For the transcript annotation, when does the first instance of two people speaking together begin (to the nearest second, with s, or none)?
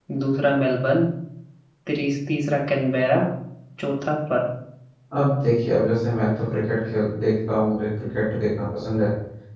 none